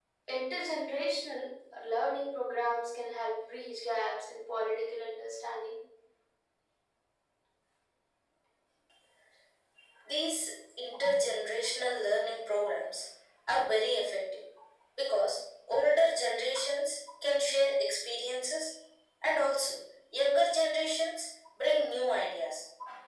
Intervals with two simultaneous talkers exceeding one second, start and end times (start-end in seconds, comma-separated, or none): none